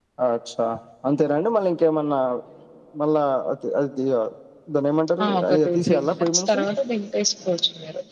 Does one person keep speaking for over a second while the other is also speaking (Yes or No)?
Yes